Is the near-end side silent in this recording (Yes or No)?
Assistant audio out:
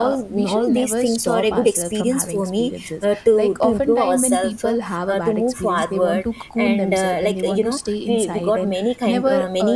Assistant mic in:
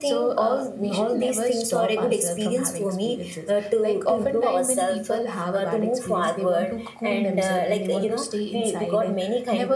Yes